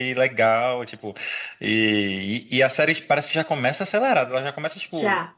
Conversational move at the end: listening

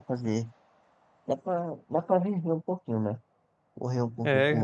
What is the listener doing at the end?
taking over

